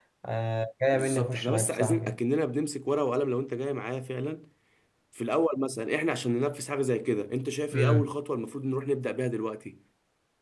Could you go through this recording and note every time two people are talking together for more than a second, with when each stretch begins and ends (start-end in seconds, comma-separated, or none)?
0.9-2.2